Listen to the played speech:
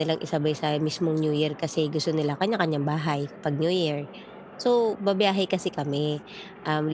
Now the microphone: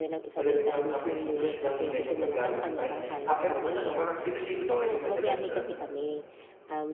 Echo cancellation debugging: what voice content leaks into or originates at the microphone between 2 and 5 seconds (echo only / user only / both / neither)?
both